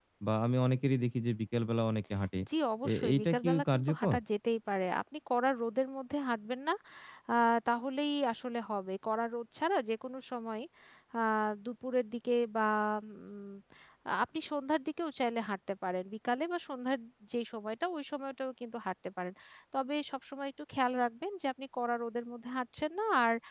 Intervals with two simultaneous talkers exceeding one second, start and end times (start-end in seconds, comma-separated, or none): 2.9-4.2